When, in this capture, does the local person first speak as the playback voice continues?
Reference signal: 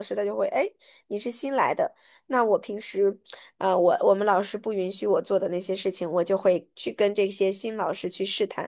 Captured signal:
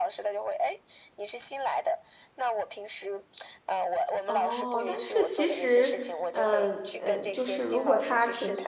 4 s

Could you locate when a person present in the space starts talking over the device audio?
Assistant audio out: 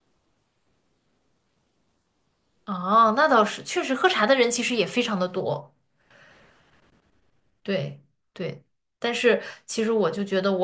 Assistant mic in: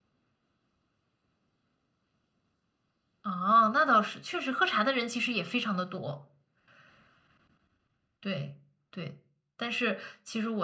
none

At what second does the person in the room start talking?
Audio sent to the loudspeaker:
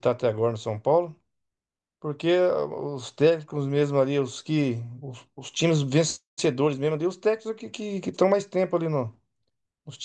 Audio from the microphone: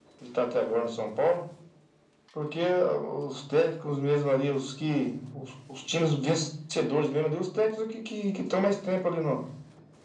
none

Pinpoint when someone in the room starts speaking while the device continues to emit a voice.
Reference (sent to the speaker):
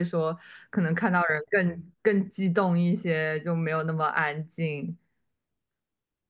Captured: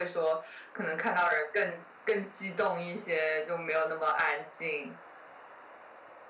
none

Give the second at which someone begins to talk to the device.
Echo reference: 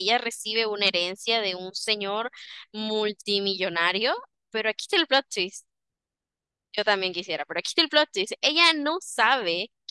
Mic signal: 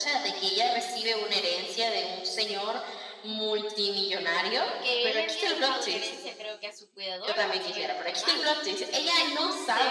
5 s

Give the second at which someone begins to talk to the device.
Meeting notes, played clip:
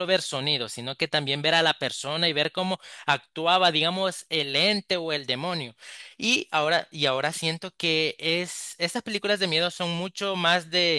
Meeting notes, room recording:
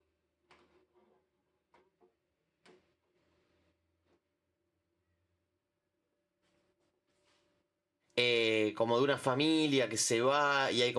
8 s

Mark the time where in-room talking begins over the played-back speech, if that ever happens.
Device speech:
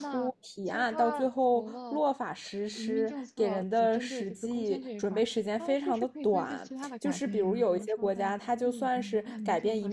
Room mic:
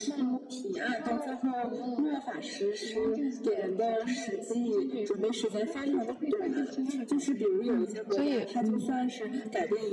8 s

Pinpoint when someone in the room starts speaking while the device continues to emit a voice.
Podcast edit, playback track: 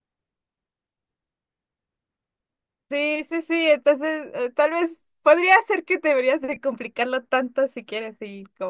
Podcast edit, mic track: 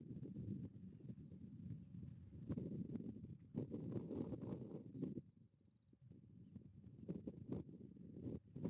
none

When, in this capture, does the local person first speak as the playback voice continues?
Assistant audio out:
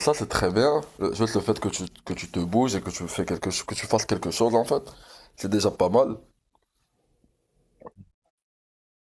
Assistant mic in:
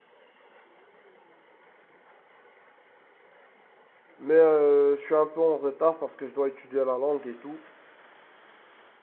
4 s

